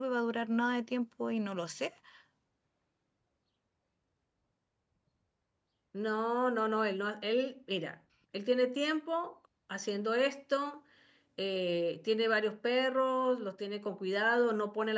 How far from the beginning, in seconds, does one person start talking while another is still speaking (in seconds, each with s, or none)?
none